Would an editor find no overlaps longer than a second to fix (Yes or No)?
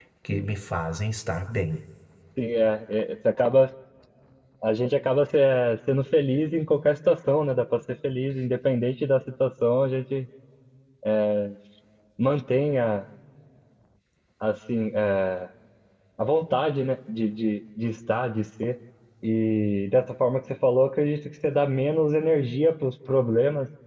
Yes